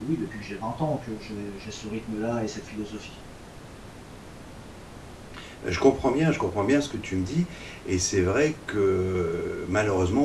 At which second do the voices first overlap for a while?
none

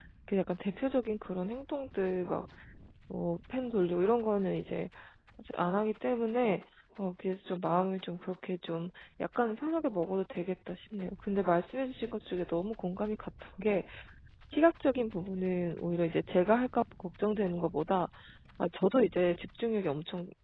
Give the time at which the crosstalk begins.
none

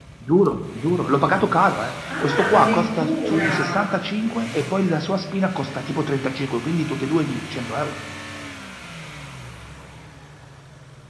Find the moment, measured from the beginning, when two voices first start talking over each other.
2 s

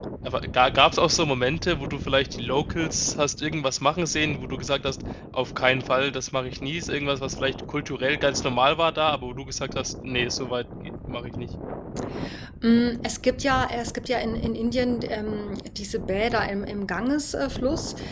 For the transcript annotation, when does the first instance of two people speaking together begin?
none

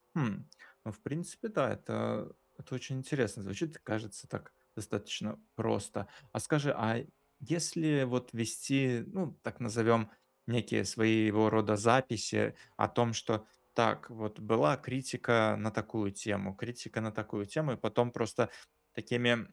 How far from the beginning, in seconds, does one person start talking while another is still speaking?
none

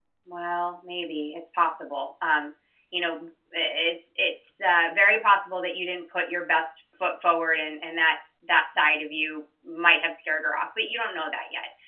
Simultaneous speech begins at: none

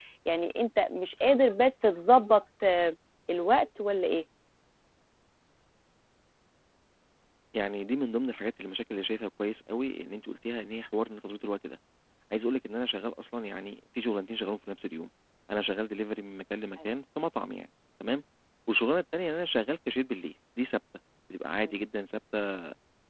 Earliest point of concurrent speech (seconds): none

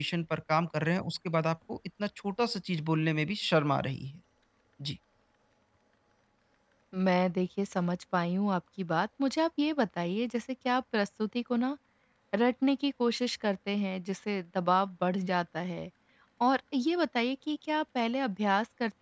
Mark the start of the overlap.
none

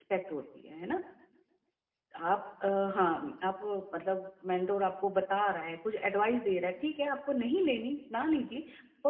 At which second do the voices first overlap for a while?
none

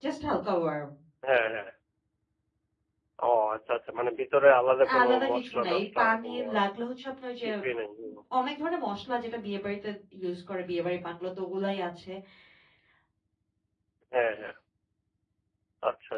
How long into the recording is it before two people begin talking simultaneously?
5 s

